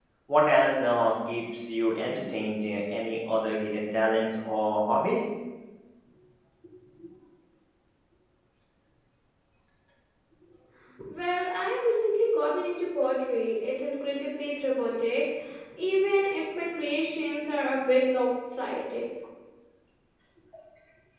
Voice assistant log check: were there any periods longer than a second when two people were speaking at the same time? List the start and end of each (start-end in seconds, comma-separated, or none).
none